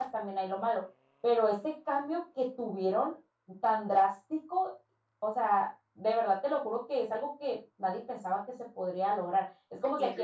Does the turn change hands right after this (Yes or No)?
No